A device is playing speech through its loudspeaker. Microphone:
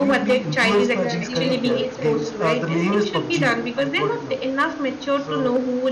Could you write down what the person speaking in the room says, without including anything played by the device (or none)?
yeah. During COVID time, it was very popular.